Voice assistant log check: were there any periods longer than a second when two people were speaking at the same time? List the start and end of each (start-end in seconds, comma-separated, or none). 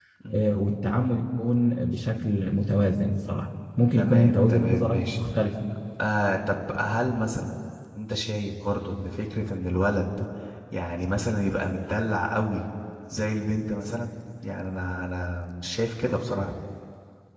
4.0-5.2